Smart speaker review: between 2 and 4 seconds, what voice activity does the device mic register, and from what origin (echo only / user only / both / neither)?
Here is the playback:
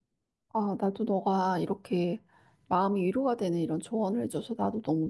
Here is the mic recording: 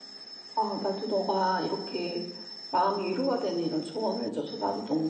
echo only